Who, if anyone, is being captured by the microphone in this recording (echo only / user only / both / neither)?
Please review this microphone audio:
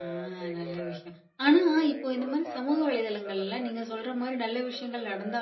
both